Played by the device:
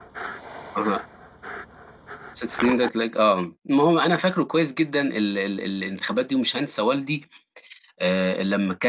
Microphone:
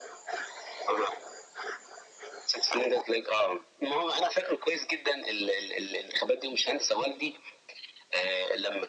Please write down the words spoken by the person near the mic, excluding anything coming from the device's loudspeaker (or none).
none